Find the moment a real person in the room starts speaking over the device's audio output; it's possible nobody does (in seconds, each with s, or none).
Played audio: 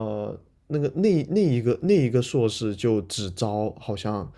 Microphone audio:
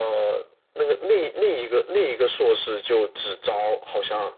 none